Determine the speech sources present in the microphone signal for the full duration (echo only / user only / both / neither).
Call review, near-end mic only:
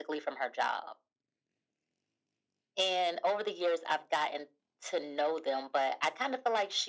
echo only